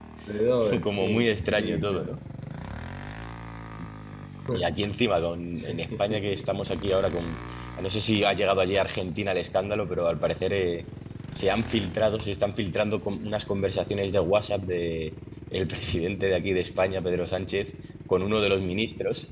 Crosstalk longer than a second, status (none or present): present